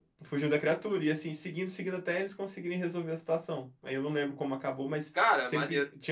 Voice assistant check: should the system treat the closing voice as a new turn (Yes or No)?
No